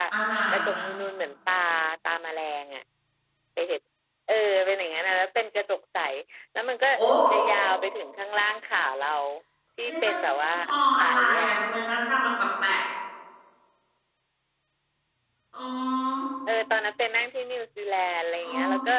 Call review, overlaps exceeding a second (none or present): none